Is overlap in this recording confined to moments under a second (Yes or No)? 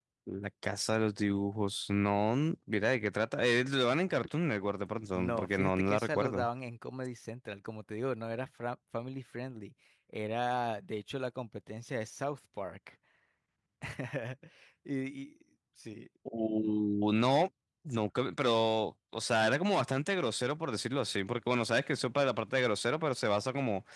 No